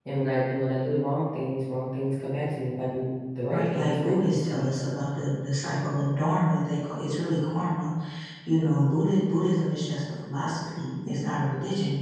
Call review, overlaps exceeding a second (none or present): present